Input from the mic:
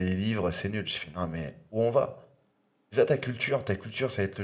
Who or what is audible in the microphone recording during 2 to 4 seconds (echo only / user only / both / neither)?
user only